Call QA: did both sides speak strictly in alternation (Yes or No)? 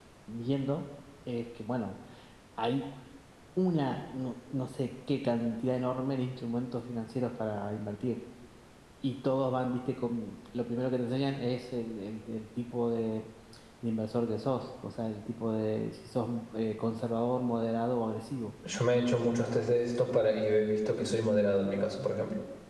Yes